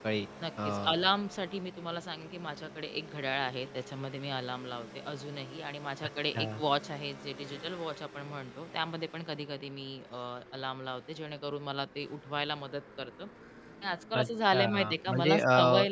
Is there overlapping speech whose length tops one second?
Yes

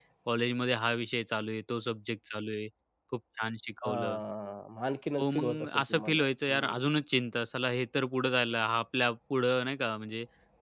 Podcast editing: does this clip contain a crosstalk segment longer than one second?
Yes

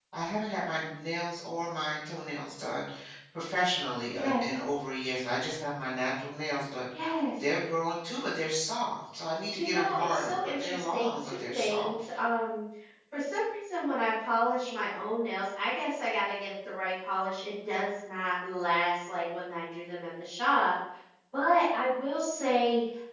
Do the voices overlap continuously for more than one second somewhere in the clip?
Yes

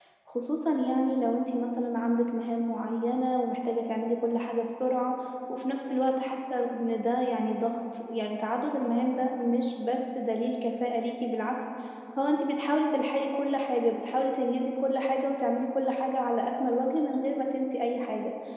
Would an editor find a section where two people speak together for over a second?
No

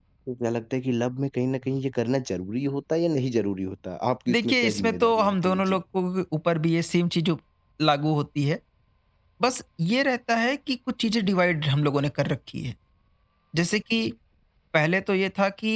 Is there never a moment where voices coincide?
No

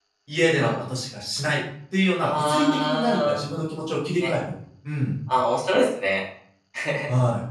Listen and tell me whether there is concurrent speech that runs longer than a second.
Yes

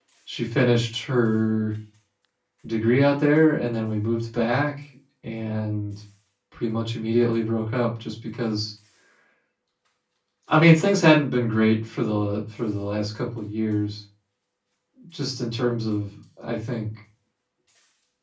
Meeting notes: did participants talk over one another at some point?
No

